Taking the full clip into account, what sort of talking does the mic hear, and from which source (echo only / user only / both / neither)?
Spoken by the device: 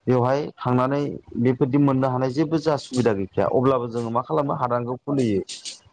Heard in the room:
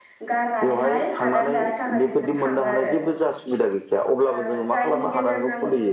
both